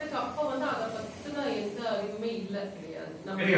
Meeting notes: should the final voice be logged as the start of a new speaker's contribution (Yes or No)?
No